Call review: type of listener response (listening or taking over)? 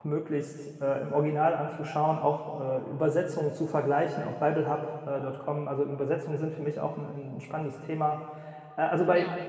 listening